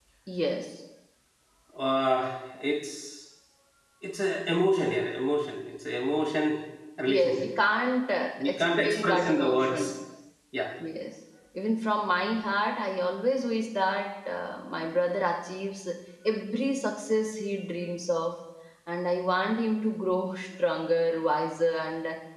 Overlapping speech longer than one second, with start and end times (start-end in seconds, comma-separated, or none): 8.4-9.9